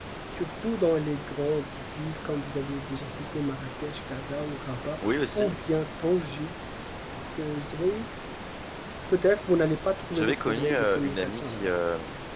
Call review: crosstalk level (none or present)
present